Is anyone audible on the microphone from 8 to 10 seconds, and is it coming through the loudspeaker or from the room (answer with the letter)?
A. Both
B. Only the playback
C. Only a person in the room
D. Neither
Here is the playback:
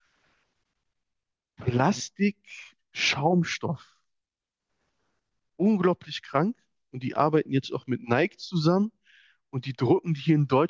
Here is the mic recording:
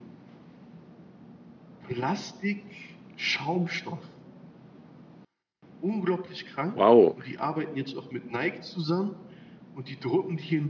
B